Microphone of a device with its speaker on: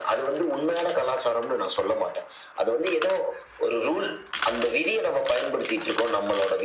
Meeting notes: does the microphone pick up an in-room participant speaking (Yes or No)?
No